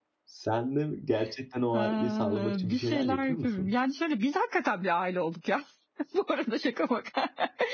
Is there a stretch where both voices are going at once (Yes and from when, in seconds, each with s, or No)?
Yes, from 1.7 s